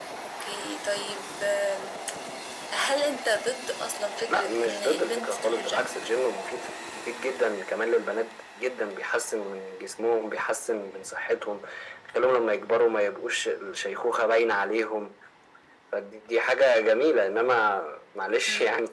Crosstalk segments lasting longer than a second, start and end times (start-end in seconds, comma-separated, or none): 4.3-6.0